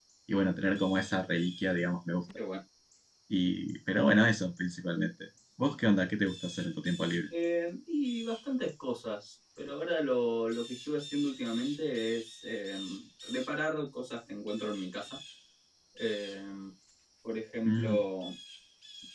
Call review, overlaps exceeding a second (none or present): none